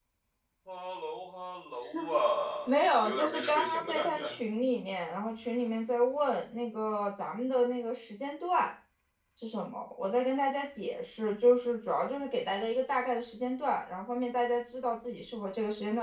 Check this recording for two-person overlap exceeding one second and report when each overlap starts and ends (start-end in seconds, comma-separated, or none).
2.6-4.3